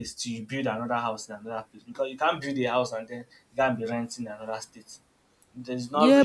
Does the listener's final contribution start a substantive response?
Yes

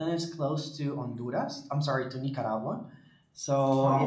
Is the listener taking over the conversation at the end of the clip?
No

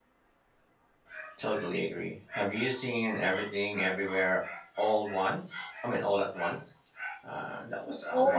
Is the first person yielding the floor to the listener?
Yes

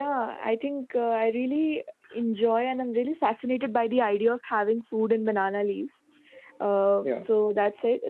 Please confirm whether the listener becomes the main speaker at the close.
No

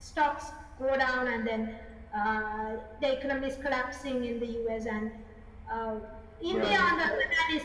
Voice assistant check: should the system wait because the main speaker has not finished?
Yes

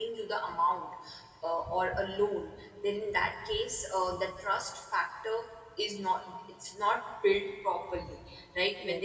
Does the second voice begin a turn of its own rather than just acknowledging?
No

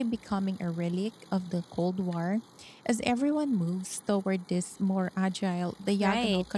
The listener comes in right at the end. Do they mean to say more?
Yes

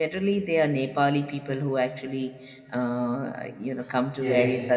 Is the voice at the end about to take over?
Yes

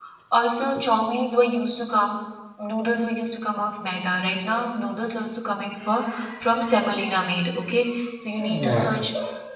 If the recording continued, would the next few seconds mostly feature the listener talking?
No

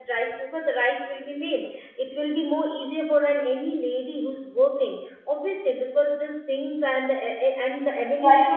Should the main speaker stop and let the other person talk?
Yes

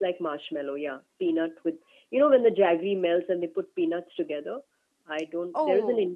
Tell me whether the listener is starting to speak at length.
No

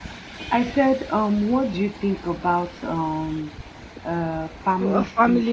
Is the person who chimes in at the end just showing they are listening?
No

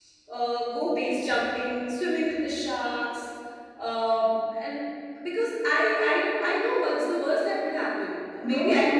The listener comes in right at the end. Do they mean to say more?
Yes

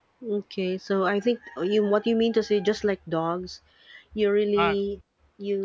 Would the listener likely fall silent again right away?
Yes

